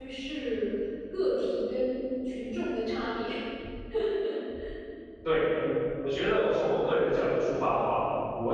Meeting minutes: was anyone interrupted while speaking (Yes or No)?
No